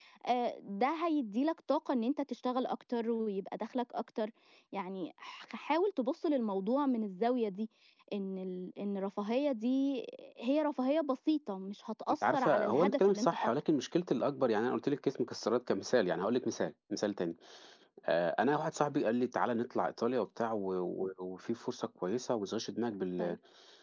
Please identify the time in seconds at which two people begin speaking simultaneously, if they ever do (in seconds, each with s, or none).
12.2 s